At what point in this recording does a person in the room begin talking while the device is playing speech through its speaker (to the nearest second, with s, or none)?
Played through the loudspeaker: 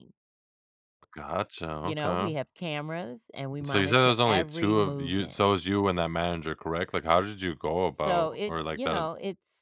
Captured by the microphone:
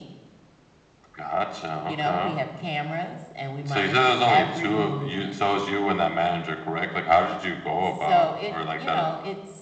none